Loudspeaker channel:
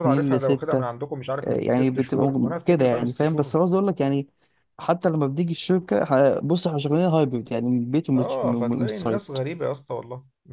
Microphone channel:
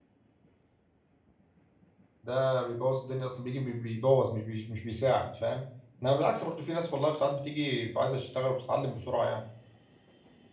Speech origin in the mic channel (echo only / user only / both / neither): user only